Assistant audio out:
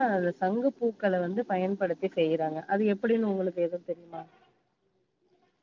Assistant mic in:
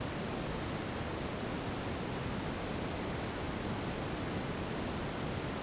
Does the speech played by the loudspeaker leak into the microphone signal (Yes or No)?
No